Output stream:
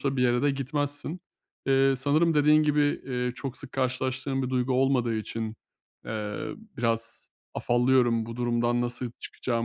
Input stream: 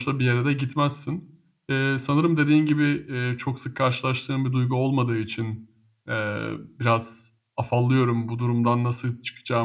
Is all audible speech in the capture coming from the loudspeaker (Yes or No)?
Yes